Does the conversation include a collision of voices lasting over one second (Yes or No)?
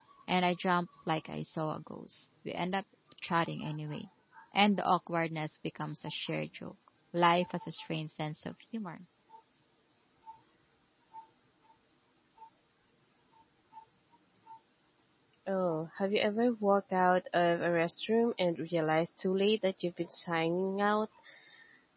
No